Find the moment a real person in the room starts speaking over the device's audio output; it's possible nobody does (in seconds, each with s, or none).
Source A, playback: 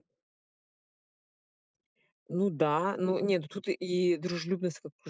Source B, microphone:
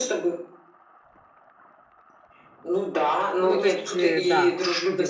3.4 s